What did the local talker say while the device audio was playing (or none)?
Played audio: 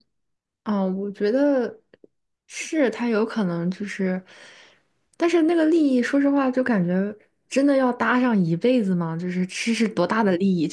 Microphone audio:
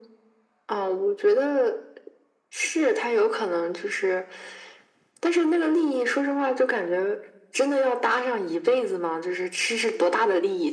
none